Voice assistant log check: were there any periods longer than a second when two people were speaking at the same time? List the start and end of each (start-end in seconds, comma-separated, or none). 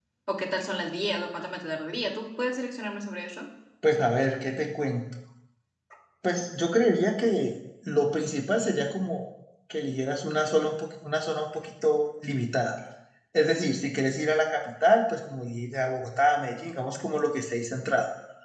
none